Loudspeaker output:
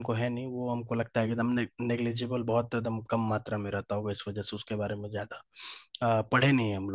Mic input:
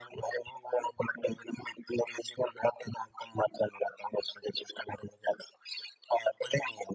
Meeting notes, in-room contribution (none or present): none